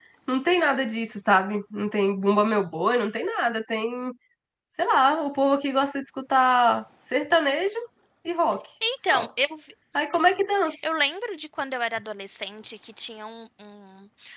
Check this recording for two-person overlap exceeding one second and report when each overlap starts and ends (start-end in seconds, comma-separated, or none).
none